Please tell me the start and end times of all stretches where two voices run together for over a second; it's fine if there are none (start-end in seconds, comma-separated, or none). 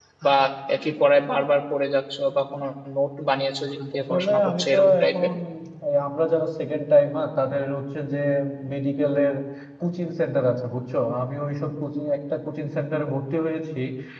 4.0-5.3